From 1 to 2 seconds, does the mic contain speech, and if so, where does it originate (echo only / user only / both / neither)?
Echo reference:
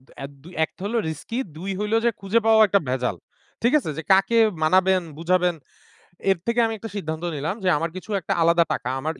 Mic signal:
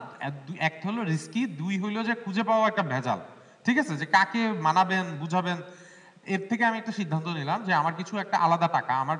echo only